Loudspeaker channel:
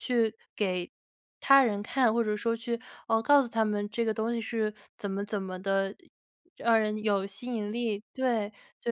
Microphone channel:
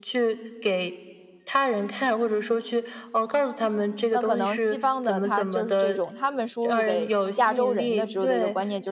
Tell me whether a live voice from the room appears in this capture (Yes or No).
Yes